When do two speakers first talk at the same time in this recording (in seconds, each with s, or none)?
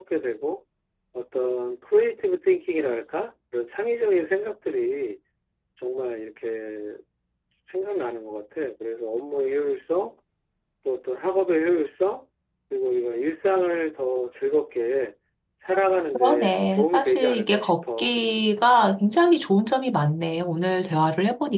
16.1 s